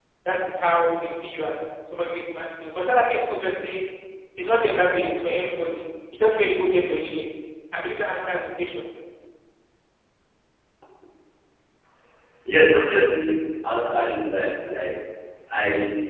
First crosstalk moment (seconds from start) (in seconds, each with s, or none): none